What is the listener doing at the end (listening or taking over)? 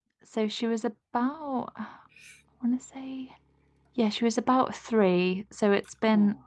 listening